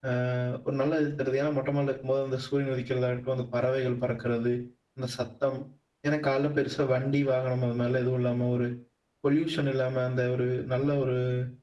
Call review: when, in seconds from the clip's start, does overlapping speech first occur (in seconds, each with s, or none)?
none